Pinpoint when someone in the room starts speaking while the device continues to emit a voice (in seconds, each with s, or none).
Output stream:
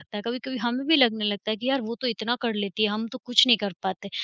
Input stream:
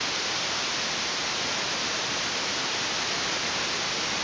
none